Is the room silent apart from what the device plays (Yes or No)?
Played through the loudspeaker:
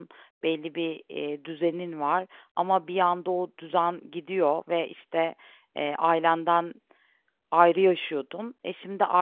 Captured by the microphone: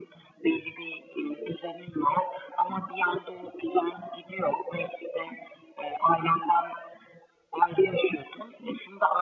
Yes